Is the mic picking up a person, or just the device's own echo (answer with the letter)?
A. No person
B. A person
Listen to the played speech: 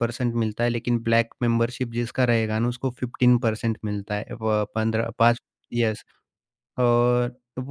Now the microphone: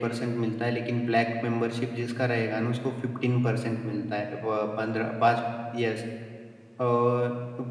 A